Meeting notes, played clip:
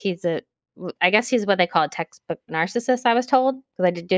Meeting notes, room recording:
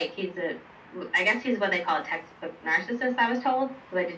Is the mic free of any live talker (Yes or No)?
Yes